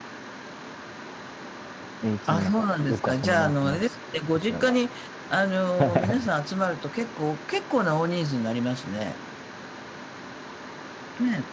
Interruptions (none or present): present